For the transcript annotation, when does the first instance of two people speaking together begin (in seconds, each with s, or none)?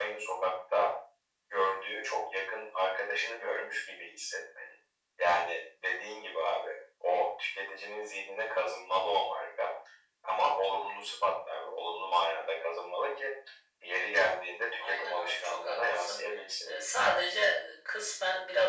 14.8 s